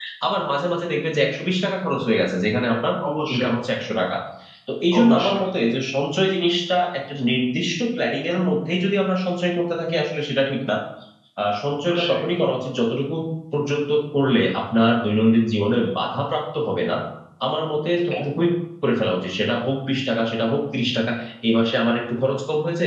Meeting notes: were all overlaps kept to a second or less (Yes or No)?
Yes